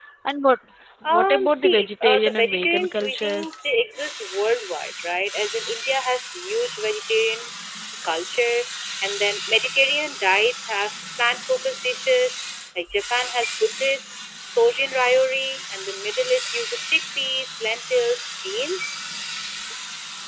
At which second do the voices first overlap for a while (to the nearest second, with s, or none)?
1 s